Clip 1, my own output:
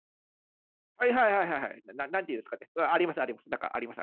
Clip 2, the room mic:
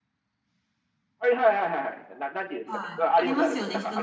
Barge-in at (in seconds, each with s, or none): 2.6 s